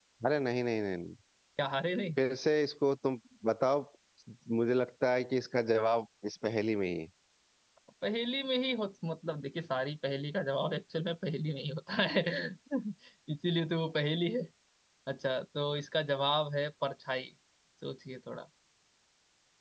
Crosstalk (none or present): none